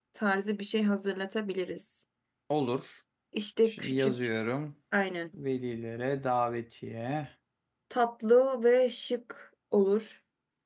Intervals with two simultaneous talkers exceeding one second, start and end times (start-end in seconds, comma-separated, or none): none